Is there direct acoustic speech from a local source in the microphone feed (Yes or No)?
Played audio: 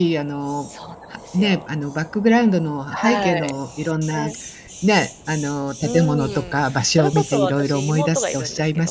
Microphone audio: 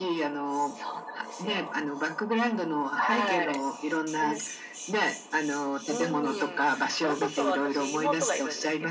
No